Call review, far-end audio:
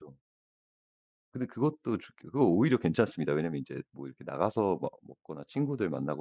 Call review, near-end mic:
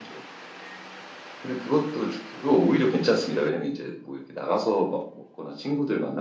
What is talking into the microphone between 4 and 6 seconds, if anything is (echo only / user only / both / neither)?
echo only